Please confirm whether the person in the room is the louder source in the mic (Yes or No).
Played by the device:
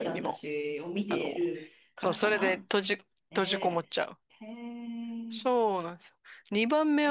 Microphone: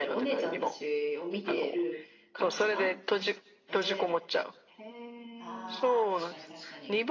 No